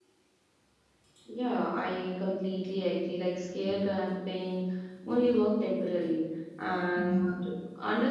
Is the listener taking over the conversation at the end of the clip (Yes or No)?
No